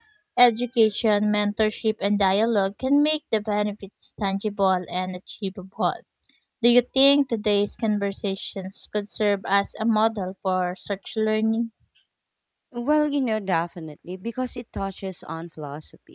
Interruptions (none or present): none